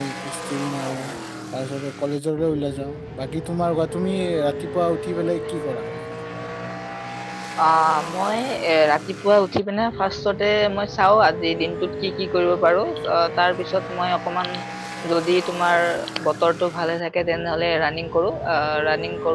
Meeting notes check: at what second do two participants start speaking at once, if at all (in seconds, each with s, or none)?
none